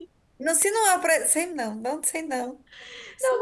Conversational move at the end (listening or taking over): taking over